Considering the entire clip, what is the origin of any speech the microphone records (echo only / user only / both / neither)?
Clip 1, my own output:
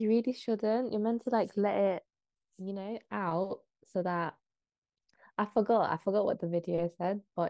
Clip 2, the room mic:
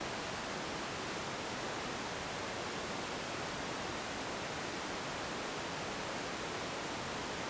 neither